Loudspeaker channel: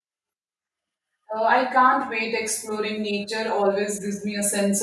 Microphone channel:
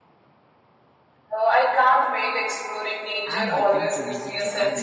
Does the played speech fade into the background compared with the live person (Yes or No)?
No